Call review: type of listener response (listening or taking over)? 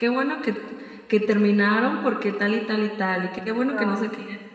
listening